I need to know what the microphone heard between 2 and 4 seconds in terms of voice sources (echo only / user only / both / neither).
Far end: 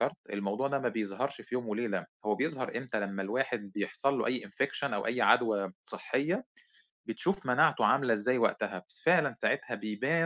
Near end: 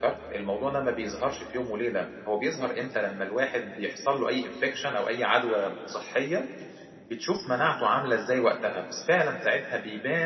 echo only